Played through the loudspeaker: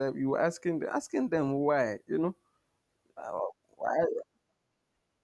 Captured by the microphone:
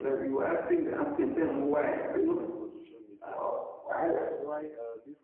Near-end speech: present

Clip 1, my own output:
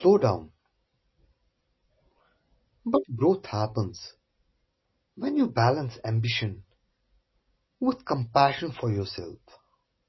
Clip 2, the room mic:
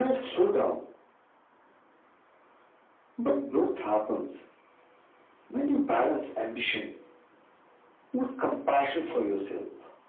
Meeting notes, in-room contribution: none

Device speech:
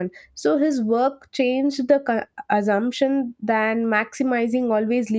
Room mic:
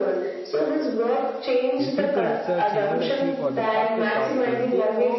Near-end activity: present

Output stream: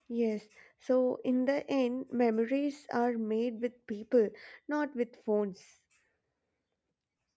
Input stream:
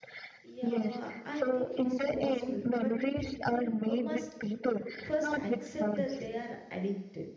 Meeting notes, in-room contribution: present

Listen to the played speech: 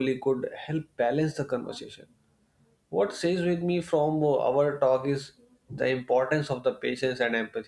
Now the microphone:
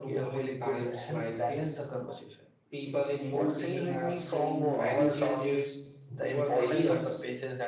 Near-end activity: present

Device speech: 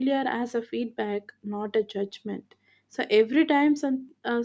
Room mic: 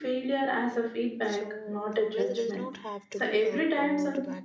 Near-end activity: present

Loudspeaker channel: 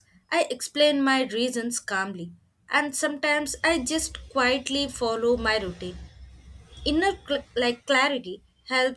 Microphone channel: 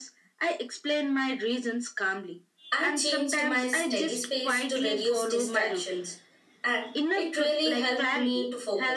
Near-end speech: present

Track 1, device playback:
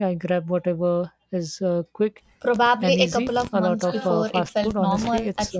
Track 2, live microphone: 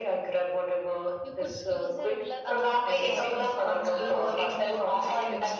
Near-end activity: present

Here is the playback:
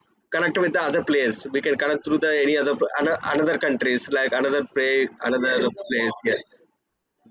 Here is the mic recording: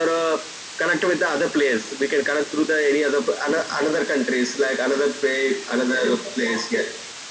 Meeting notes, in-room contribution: none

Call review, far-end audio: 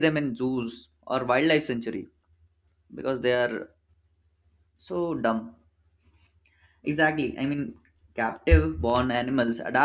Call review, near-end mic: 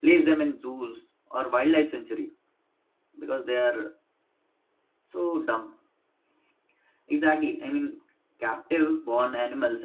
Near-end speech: none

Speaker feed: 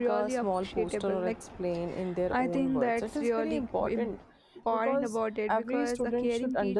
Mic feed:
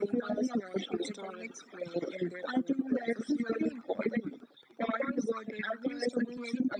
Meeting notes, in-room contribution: none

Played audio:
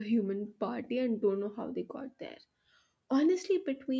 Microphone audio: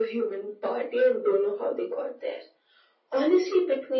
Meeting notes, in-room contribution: none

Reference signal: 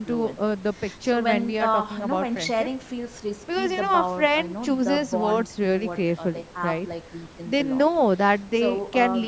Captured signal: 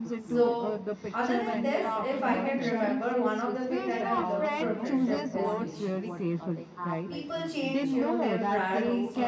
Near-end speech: present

